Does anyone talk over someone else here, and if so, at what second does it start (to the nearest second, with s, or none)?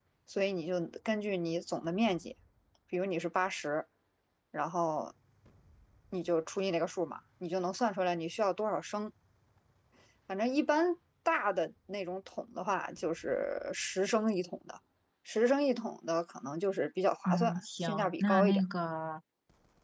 17 s